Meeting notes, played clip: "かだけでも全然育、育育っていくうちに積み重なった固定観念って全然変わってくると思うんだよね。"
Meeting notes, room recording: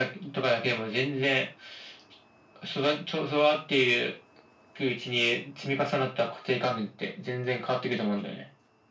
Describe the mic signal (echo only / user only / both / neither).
echo only